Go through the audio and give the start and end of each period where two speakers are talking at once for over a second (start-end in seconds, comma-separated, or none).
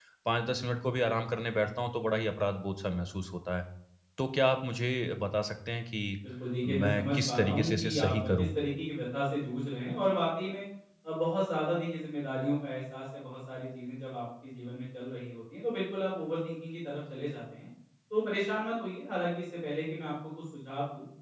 6.7-8.5